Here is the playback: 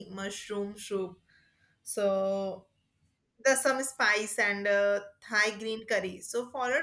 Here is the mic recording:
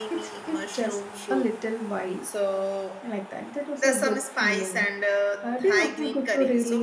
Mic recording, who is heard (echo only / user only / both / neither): both